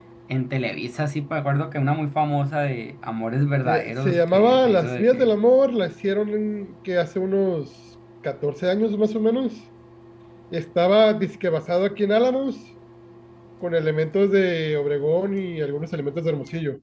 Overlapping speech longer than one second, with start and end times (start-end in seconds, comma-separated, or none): 3.6-5.3